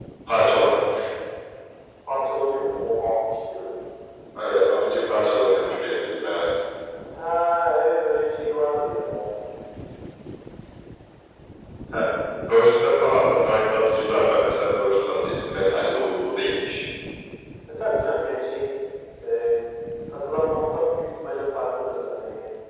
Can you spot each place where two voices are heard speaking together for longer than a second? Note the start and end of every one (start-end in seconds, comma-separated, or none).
none